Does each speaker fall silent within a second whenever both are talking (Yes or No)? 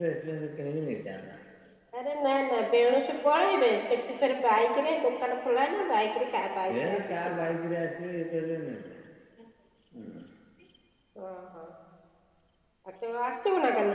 Yes